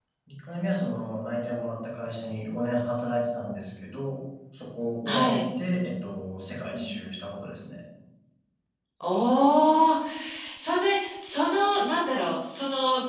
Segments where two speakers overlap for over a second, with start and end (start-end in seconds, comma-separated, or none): none